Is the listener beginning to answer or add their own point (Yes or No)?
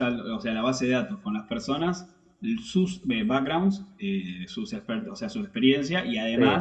No